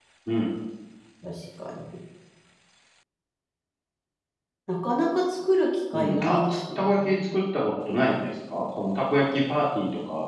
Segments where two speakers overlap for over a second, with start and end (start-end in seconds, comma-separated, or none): 5.9-7.4